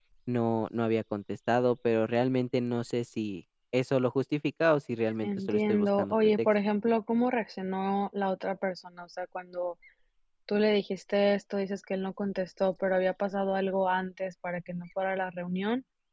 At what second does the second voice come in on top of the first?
5.2 s

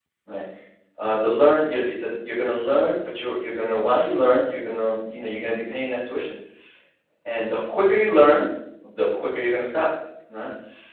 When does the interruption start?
none

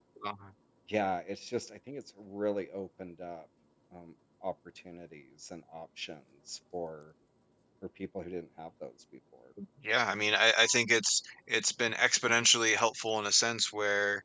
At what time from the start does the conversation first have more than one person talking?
none

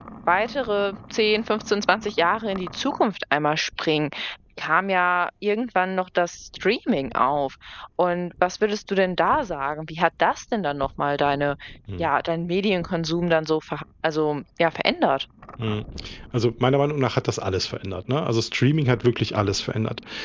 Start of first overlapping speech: none

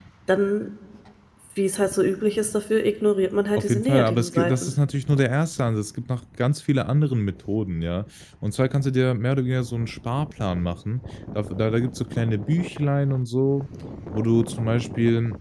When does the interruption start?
3.6 s

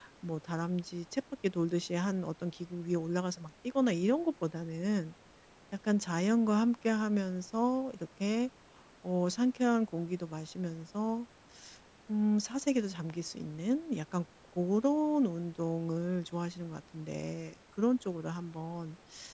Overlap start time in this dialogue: none

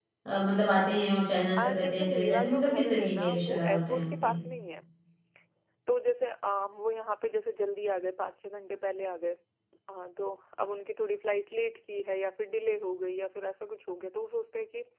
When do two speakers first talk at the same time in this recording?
1.6 s

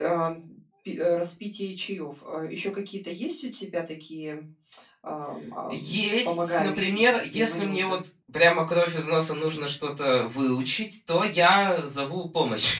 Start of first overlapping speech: 5.7 s

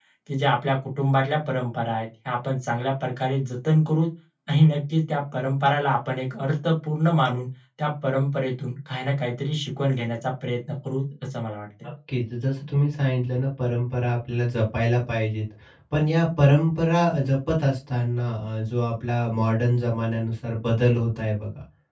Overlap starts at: none

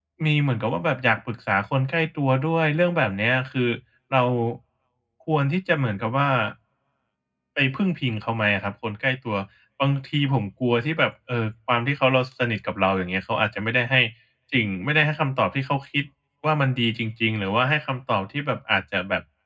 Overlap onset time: none

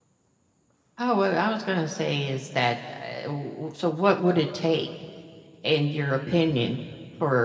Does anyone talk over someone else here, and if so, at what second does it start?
none

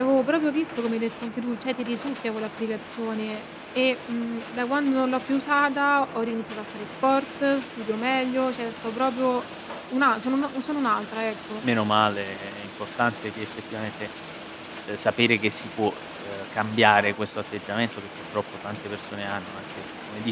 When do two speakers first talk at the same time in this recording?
none

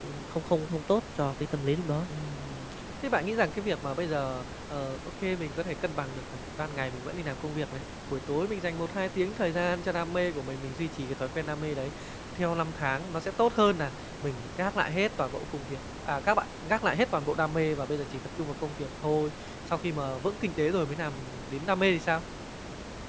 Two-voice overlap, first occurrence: none

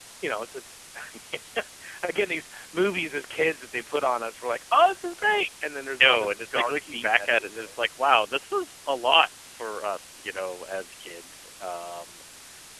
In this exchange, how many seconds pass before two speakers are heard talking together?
6.0 s

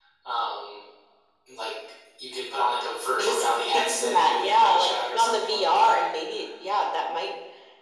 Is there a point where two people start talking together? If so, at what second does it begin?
3.2 s

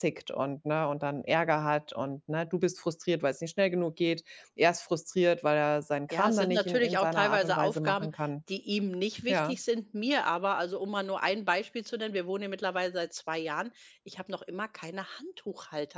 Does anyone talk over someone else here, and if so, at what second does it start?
6.1 s

